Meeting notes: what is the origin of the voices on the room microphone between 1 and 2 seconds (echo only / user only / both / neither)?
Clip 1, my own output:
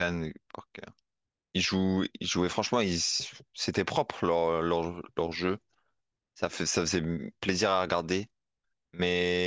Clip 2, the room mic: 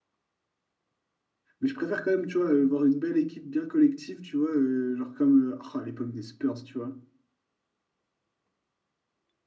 user only